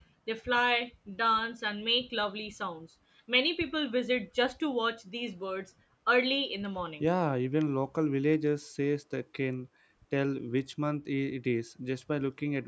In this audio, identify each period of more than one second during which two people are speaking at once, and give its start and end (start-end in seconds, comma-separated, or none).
none